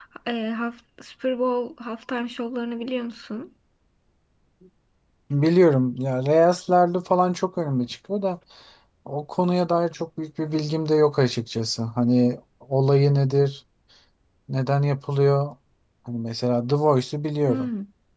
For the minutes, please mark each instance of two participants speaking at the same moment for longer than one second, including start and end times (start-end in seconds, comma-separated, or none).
none